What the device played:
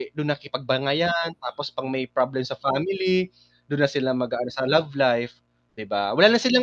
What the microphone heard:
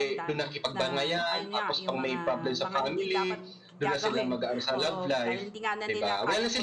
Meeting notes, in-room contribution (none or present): present